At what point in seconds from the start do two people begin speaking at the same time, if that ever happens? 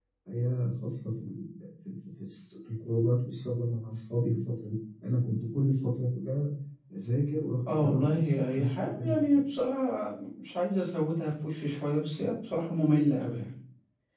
7.7 s

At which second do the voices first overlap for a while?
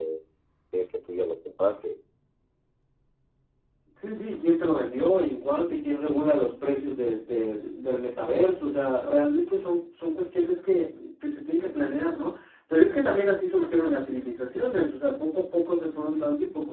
none

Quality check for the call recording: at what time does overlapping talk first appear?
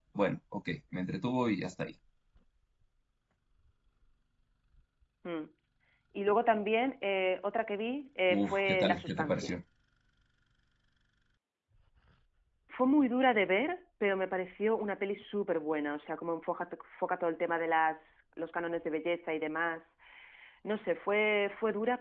8.3 s

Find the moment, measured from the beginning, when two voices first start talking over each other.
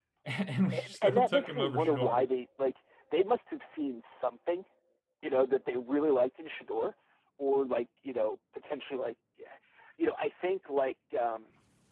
0.8 s

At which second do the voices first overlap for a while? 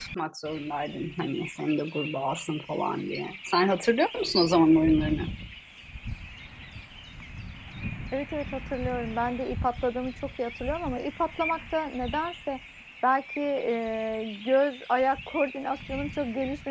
none

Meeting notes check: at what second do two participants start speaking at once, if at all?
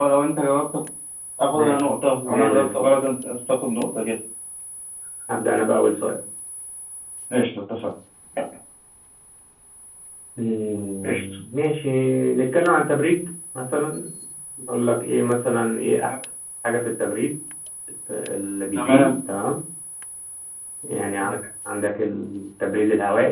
1.5 s

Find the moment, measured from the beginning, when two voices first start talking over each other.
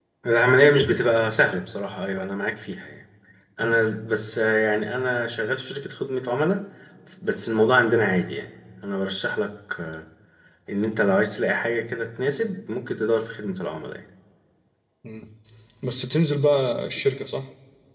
none

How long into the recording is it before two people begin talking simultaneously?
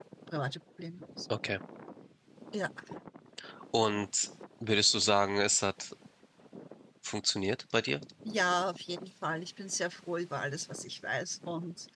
none

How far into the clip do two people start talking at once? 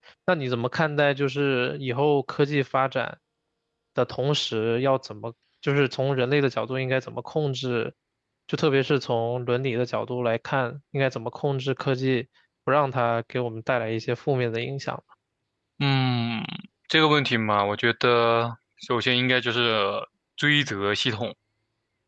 none

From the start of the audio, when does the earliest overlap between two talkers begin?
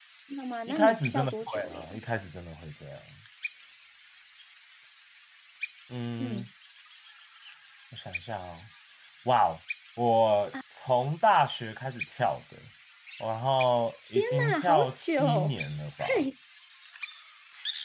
0.7 s

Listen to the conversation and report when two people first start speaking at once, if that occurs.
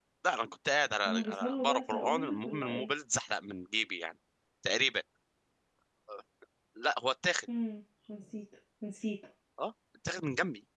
1.1 s

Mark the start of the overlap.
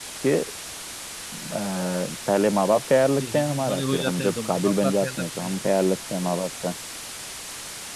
3.2 s

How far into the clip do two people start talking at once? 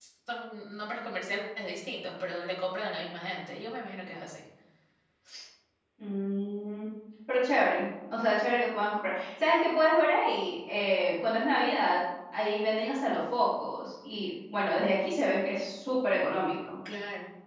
none

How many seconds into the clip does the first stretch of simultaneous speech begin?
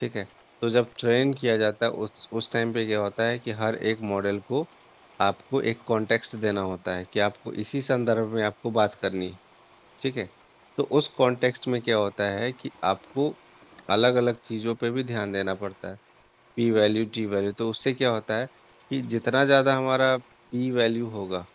none

